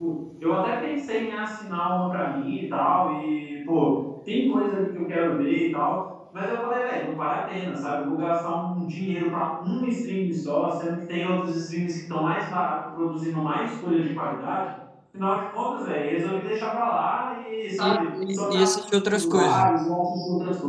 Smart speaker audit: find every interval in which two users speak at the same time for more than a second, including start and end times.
17.8-19.7

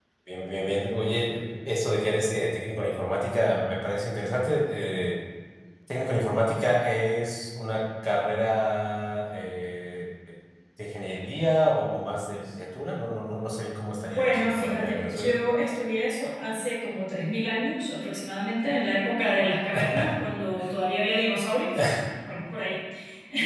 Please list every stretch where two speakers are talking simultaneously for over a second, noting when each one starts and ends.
14.1-15.3

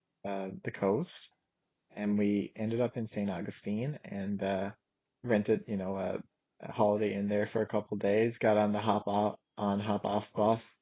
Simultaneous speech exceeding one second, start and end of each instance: none

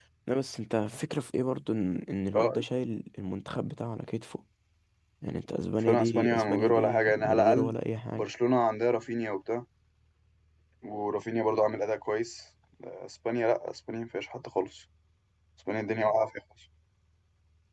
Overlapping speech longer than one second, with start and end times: 5.8-7.7

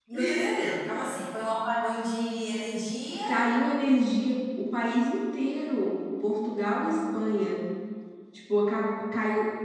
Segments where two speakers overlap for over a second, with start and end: none

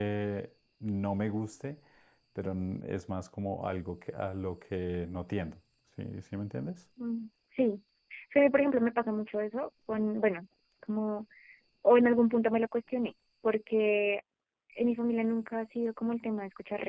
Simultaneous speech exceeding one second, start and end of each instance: none

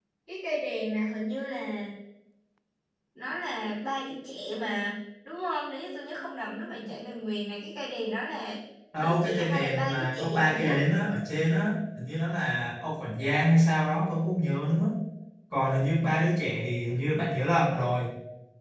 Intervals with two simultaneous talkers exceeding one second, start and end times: 9.0-10.7

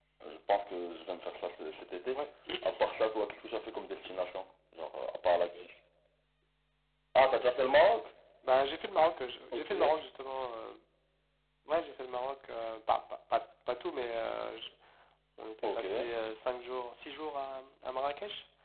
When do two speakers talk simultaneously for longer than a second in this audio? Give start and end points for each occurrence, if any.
none

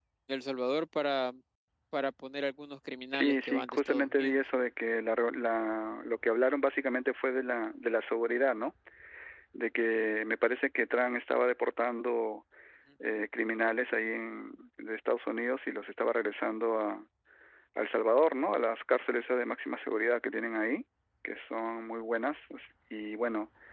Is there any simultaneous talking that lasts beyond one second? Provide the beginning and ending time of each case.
3.1-4.4

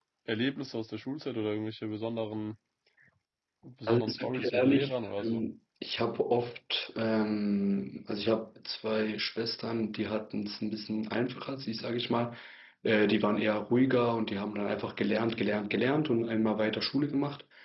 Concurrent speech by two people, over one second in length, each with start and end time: 3.9-5.4

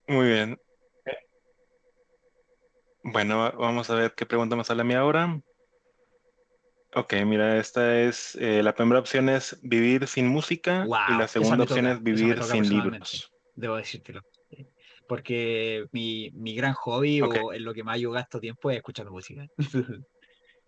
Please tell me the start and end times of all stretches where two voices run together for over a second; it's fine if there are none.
10.8-13.2

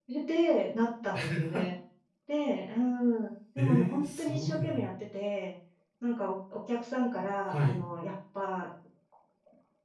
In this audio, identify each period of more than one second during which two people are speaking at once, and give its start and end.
3.6-4.9

